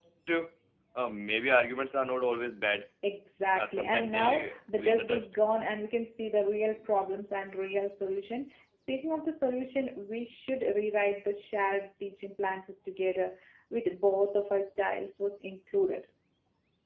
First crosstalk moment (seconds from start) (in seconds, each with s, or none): 3.5 s